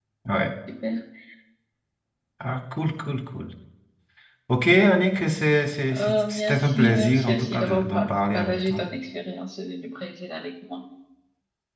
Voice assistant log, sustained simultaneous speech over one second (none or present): present